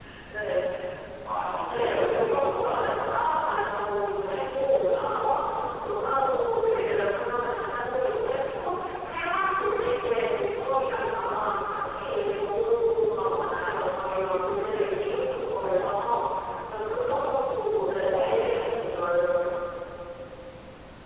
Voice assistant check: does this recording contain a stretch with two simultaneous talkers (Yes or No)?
Yes